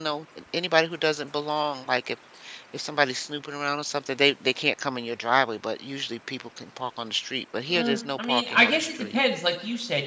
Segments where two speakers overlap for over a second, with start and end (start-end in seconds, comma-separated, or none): 7.7-9.2